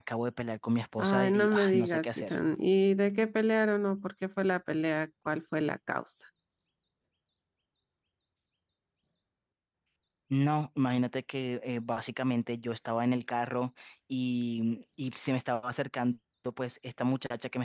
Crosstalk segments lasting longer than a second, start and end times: 1.0-2.3

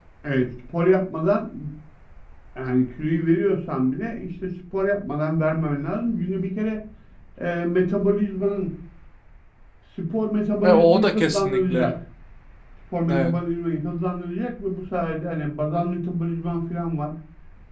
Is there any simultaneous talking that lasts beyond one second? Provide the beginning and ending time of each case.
10.6-11.9

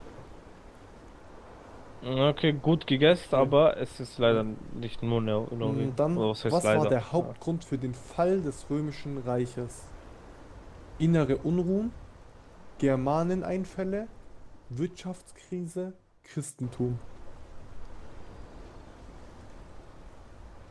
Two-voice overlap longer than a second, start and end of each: 5.6-7.3

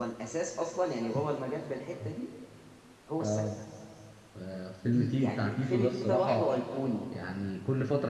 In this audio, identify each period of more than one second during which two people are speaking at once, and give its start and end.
4.9-6.6

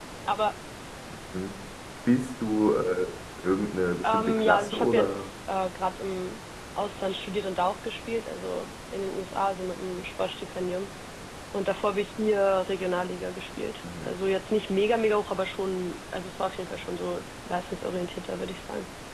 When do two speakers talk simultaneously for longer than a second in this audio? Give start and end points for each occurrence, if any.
4.0-5.3

